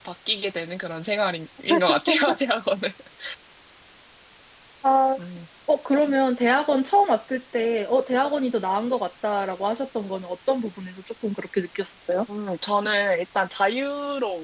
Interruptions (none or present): none